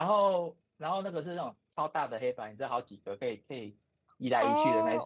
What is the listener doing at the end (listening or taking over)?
taking over